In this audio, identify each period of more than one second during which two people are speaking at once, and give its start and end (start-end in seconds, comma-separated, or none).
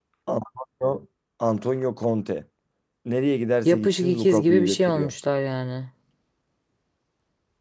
3.6-5.1